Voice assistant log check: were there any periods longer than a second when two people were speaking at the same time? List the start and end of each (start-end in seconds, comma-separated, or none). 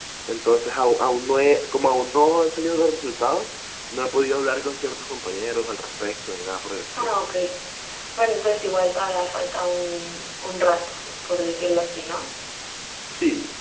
none